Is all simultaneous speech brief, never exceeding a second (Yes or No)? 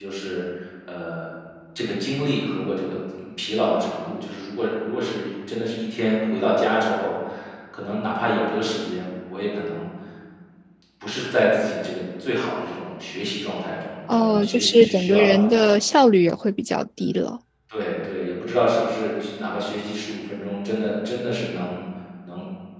No